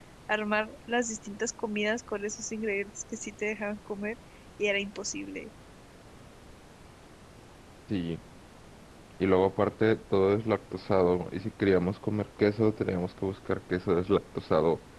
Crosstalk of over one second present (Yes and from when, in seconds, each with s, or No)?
No